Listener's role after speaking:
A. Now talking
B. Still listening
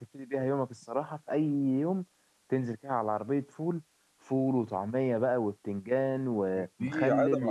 A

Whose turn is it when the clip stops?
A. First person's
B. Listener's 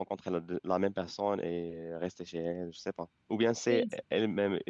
A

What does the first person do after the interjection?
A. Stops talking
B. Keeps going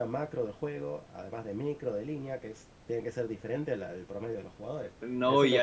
A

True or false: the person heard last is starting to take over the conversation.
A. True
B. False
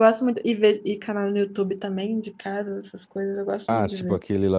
A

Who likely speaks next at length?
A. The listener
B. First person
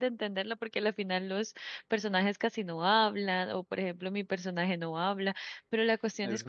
B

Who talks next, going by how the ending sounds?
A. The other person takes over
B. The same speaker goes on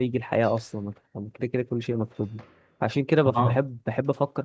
B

